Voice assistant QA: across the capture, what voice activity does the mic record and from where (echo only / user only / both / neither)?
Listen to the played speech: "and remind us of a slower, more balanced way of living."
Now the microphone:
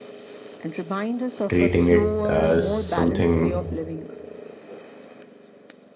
both